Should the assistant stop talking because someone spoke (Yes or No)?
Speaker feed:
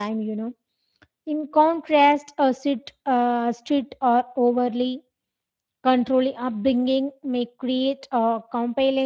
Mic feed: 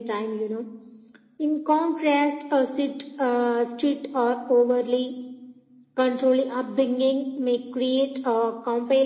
No